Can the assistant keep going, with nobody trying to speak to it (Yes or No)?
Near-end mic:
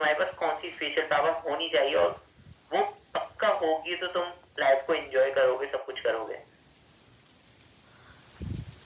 Yes